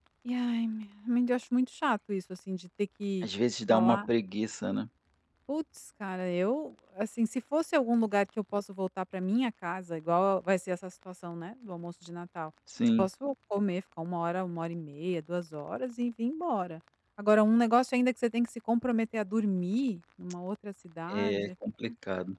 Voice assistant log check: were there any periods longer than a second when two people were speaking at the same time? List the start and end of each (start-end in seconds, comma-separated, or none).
none